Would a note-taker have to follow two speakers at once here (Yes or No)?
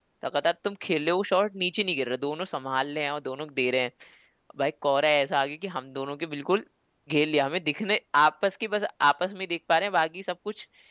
No